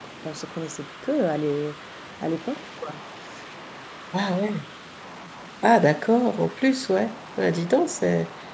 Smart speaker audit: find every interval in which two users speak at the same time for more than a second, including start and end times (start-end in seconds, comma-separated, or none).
none